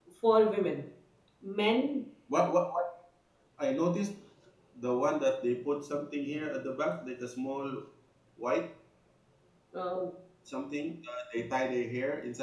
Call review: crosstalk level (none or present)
none